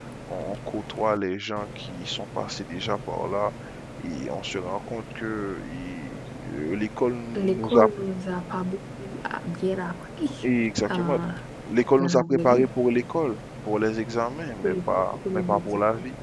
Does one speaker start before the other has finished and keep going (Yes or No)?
Yes